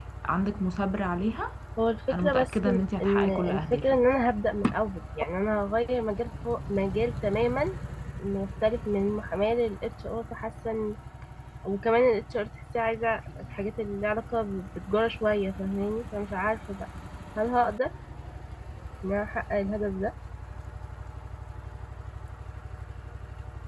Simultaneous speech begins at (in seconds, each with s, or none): 2.1 s